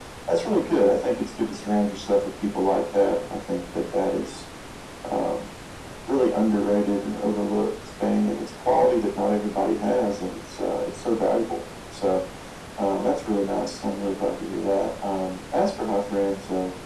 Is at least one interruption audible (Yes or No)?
No